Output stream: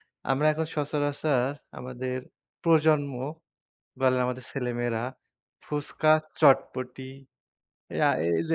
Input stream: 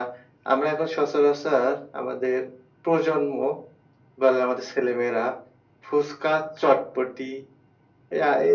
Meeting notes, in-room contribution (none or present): none